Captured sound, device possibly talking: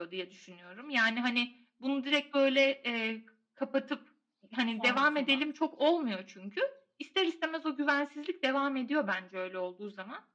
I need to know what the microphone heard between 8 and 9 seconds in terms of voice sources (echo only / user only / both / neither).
echo only